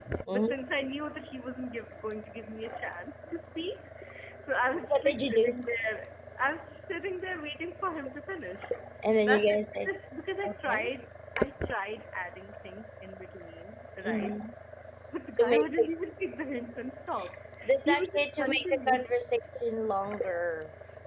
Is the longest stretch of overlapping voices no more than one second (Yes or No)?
No